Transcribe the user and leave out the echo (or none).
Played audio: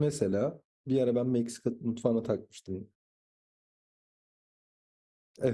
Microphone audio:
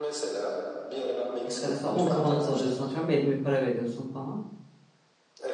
İşte mesela 10 kavanoz alıyorsun atıyorum belli bir para veriyorsun falan.